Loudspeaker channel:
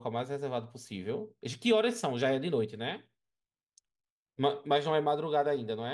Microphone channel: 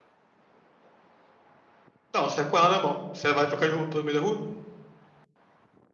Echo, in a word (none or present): none